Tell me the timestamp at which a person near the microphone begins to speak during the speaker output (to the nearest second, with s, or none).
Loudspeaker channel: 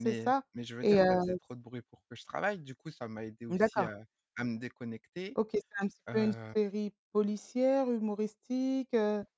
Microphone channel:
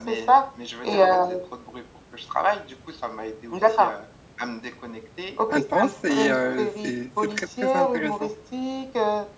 5 s